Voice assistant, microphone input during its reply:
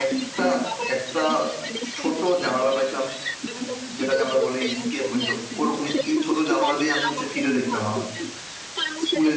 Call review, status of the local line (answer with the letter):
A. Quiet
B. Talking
B